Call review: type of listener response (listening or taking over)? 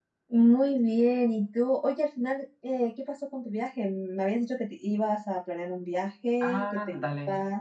taking over